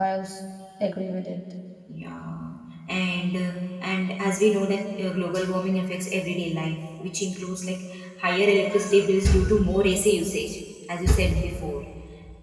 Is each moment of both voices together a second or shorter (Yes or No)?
Yes